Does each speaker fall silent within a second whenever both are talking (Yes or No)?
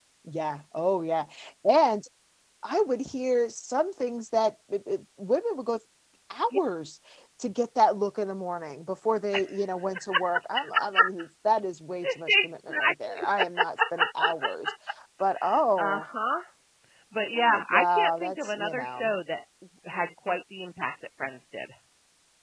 No